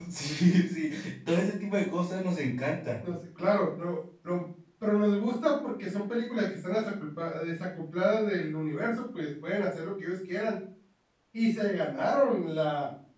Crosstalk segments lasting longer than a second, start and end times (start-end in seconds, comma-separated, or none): none